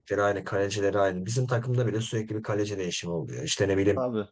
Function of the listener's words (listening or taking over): listening